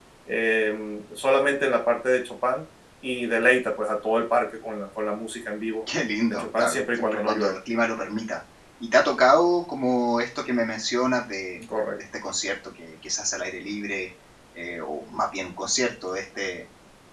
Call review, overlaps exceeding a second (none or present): present